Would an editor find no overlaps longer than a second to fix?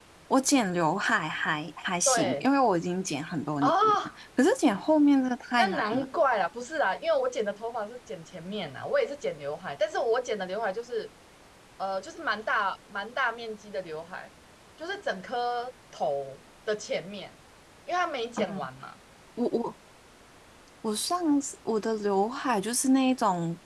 Yes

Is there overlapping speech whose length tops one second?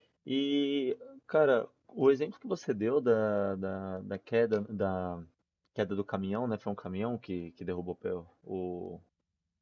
No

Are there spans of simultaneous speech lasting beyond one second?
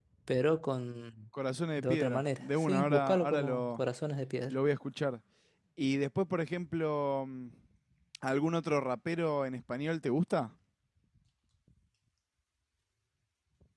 Yes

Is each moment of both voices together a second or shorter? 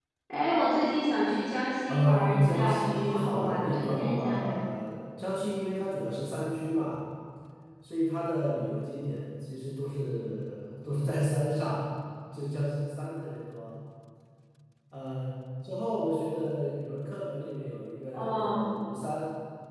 No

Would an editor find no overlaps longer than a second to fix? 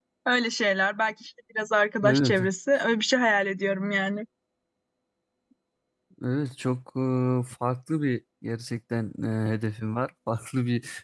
Yes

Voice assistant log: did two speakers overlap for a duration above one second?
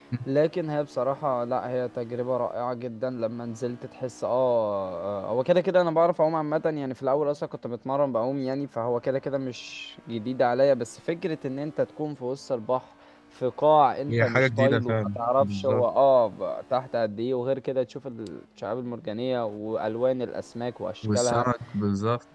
Yes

